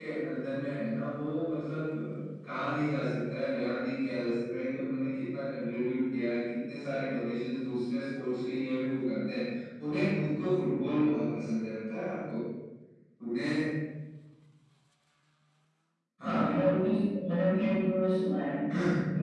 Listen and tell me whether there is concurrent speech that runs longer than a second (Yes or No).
No